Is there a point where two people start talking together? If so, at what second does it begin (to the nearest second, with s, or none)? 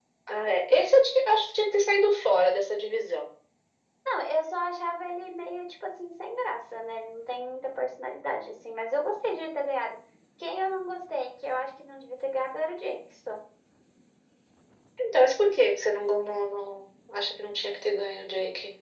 none